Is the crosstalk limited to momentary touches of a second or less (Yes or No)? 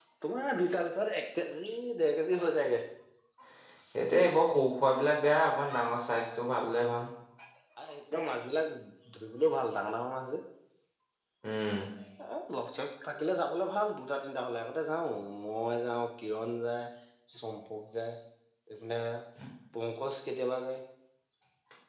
Yes